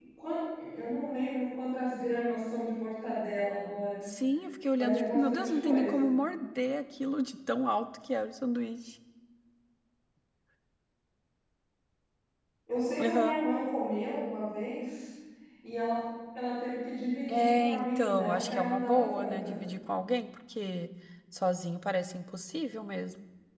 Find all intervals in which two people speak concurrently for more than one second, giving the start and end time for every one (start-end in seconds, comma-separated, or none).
4.8-6.1, 17.3-19.6